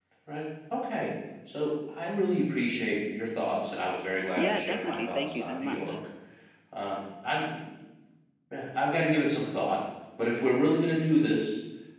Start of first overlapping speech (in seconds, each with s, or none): 4.4 s